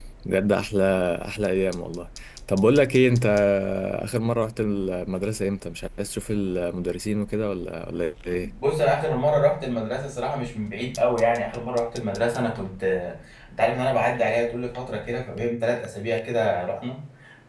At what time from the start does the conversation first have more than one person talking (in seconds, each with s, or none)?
none